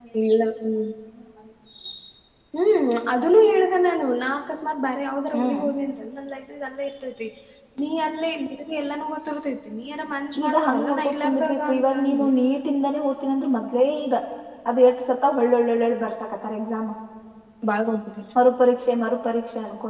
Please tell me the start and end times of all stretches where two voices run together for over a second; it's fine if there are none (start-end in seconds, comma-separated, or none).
10.4-12.3